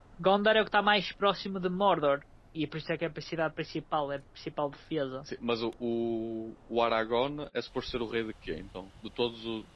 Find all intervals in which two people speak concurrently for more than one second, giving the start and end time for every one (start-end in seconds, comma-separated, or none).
none